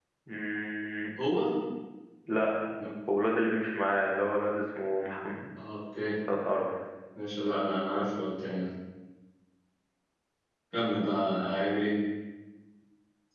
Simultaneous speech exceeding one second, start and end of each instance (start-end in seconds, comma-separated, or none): none